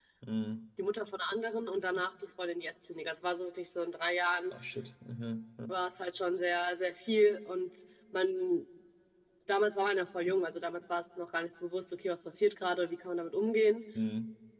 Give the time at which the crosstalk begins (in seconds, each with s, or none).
none